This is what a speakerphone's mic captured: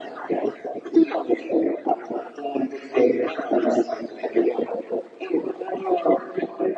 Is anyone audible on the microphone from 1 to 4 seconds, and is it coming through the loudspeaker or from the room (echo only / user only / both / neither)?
echo only